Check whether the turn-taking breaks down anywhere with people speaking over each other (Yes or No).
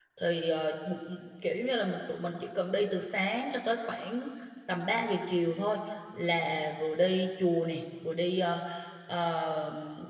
No